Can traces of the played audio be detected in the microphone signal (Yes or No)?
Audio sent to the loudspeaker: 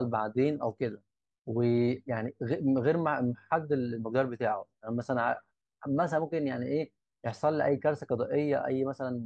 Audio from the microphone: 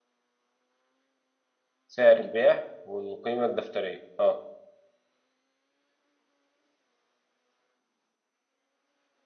No